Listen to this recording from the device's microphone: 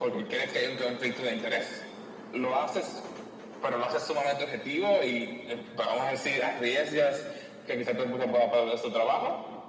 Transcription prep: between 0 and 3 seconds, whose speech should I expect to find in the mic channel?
echo only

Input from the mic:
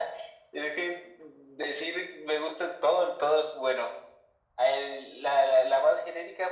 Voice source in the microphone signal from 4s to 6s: echo only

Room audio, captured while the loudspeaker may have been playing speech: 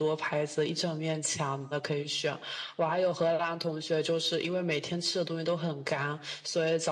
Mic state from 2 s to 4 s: echo only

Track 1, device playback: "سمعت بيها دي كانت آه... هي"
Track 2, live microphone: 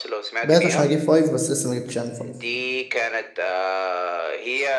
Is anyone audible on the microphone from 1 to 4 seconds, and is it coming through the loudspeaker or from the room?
both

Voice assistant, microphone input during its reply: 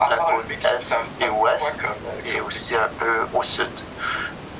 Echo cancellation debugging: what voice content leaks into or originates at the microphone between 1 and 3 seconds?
echo only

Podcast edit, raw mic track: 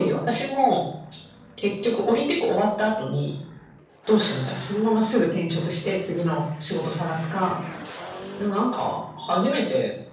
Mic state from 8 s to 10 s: echo only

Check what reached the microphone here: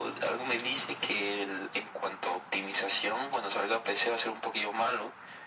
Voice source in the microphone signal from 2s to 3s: echo only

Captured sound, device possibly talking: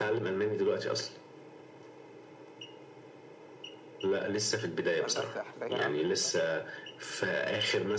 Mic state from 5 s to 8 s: both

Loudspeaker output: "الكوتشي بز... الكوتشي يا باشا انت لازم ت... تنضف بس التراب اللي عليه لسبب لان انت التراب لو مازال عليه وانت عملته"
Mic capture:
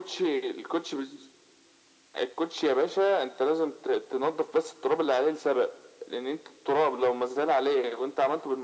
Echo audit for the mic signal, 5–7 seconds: echo only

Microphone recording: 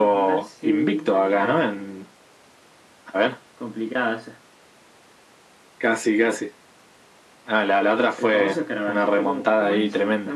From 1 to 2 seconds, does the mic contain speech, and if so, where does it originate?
echo only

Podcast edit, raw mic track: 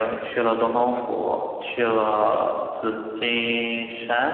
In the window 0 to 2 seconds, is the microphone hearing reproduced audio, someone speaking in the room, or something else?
echo only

